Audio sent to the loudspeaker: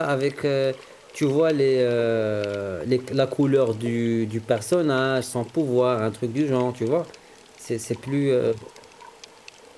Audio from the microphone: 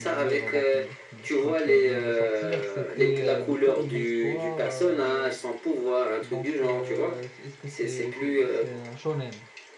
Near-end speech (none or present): present